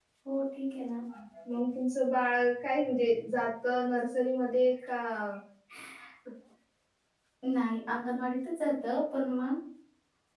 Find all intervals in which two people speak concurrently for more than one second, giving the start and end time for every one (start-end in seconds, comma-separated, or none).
none